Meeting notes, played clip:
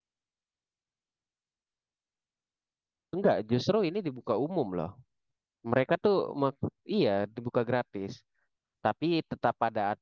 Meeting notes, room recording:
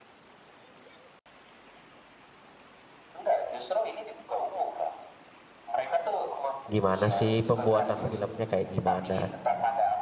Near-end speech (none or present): present